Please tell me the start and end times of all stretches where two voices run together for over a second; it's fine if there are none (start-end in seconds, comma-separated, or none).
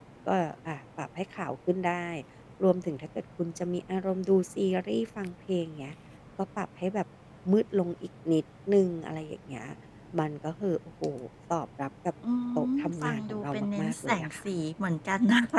12.8-14.5